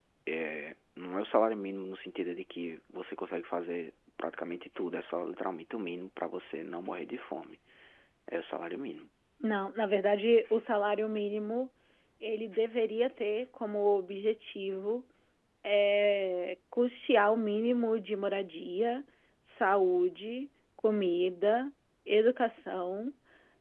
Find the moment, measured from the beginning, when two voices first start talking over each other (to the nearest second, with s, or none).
none